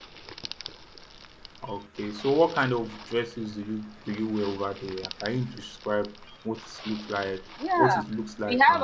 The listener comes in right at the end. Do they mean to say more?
Yes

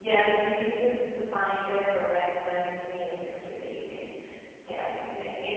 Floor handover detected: Yes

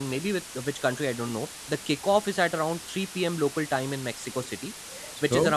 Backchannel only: Yes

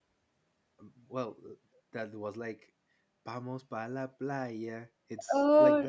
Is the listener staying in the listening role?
No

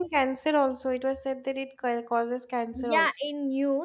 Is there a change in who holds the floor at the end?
Yes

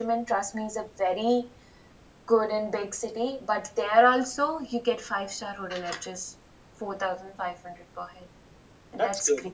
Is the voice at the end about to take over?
Yes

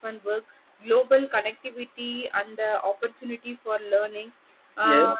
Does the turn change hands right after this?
No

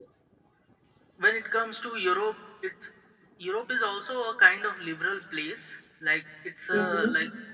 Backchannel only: Yes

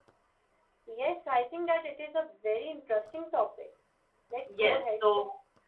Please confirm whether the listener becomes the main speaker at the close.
Yes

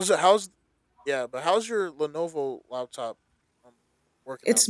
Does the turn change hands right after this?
Yes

